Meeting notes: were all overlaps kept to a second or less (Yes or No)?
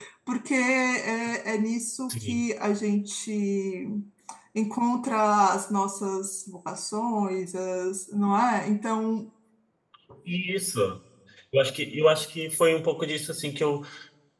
Yes